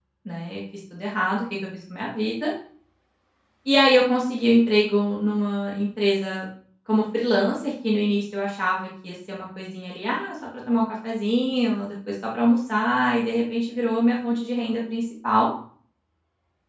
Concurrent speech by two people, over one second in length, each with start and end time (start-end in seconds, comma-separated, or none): none